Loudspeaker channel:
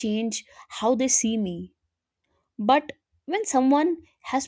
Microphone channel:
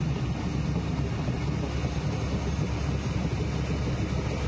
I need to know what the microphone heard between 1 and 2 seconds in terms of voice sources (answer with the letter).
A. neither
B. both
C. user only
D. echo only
A